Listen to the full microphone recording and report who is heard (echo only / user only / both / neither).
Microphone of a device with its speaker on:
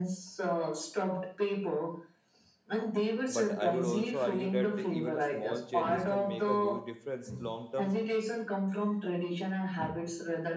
both